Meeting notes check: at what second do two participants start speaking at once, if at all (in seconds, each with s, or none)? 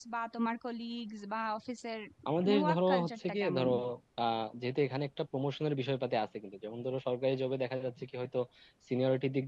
2.4 s